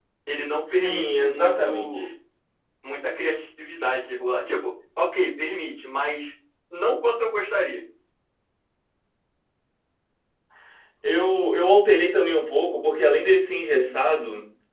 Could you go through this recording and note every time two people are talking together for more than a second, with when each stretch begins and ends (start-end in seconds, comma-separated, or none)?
0.7-2.1